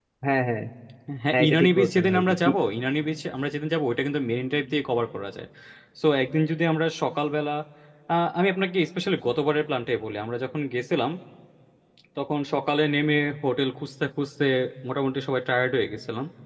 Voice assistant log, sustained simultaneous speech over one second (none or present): present